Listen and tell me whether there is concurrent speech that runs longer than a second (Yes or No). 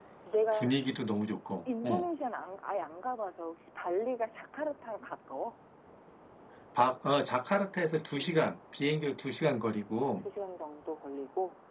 No